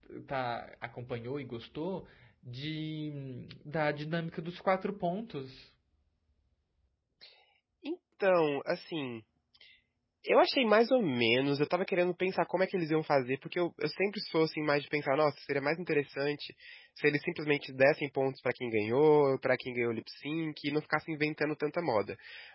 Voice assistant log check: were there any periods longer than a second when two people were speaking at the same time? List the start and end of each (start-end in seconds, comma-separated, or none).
none